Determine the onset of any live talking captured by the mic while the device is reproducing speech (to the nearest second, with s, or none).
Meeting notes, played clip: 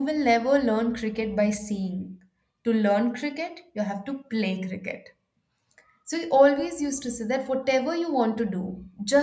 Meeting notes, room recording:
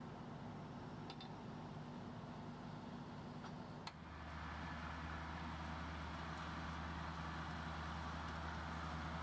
none